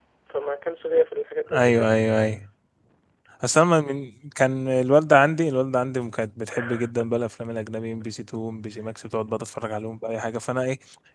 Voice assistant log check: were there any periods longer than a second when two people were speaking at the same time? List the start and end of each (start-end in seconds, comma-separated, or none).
none